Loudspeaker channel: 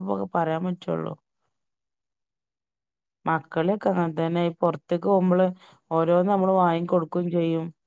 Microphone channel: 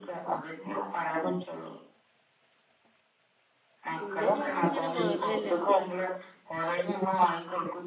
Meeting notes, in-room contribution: present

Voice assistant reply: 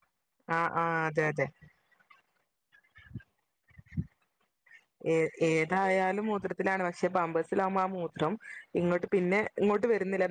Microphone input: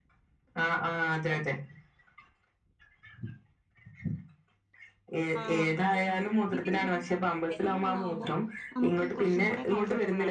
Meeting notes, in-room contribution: present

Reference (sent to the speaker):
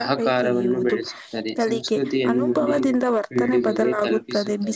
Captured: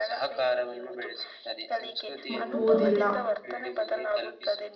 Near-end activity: present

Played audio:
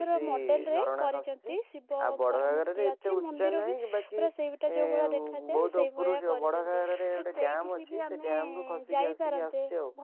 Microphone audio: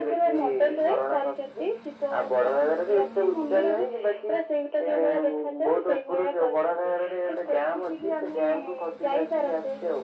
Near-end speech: none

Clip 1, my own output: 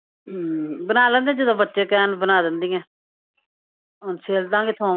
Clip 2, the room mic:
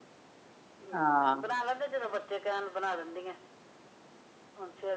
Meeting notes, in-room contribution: present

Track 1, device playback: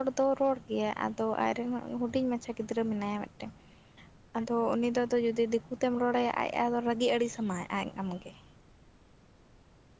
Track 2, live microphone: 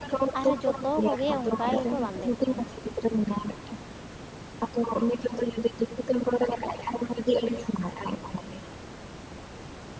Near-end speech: present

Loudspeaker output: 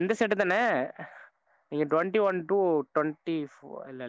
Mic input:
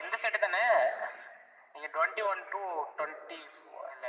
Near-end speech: none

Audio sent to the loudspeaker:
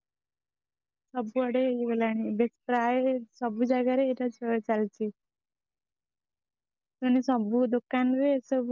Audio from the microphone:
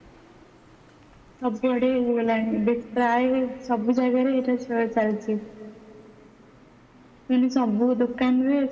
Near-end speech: none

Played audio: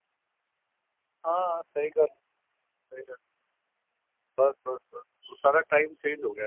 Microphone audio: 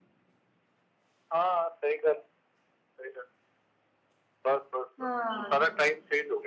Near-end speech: present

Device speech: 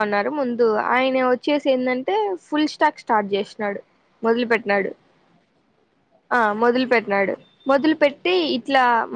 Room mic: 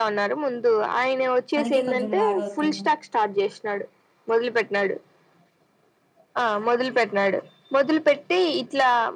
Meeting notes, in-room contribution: present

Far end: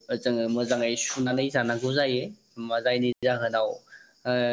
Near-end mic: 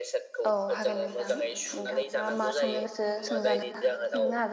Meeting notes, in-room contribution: present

